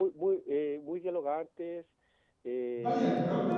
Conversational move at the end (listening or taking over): taking over